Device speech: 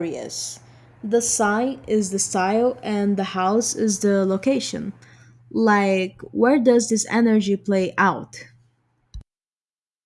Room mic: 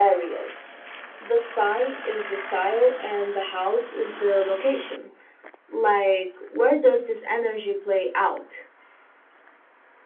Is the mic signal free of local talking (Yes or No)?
Yes